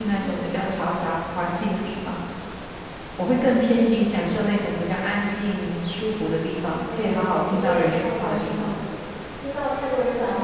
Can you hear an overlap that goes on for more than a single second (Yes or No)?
Yes